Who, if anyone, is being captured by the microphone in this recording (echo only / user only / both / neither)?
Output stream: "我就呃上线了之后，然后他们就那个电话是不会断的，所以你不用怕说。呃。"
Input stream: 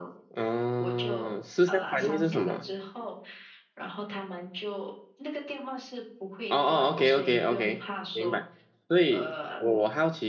both